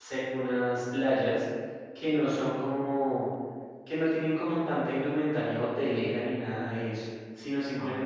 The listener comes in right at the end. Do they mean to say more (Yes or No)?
No